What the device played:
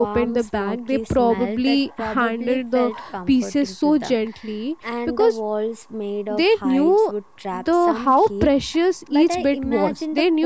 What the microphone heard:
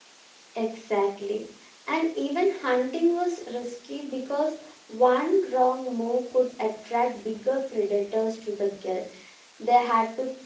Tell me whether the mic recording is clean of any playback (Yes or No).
Yes